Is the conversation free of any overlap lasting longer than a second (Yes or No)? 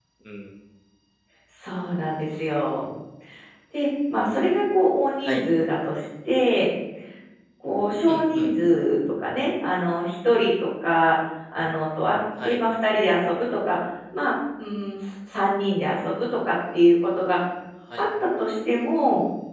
Yes